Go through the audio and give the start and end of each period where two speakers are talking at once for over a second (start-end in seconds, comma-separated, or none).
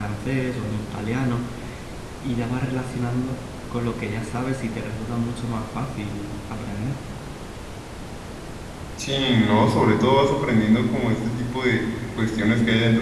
none